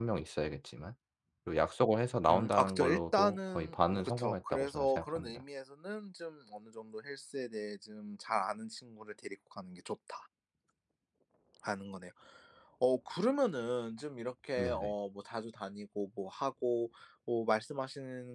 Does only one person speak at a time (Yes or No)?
No